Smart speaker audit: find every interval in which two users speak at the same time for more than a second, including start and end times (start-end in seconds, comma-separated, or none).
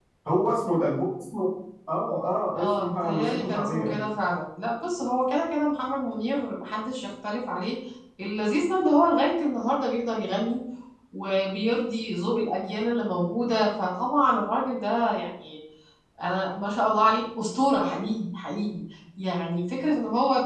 2.5-4.0